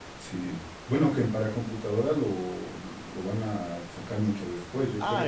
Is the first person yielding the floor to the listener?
Yes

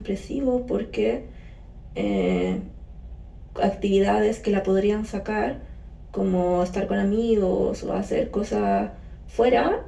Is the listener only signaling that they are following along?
Yes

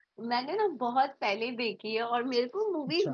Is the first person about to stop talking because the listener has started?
No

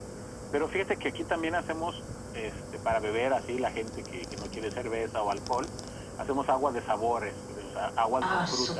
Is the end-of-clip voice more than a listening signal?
Yes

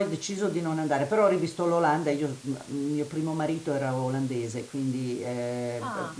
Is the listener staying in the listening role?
Yes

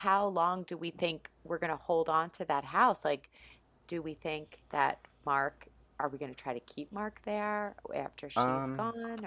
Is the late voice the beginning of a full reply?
Yes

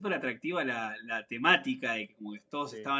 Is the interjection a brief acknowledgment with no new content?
Yes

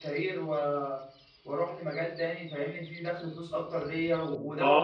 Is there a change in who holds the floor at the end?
Yes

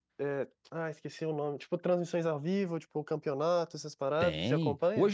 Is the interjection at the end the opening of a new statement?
Yes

